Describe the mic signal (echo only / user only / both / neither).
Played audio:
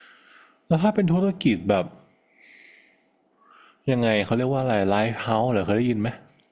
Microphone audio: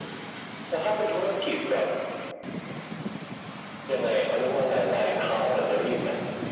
echo only